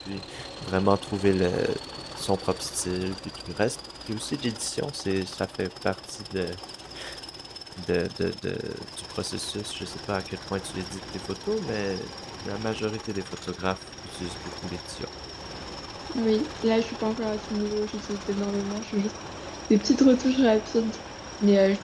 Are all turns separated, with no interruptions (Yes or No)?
Yes